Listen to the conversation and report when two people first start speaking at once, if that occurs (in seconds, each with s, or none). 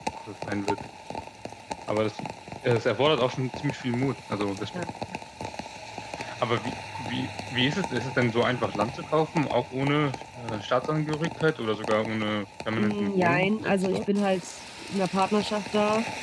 12.8 s